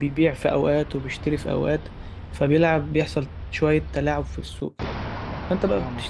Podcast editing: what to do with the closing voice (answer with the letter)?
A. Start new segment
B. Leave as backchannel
B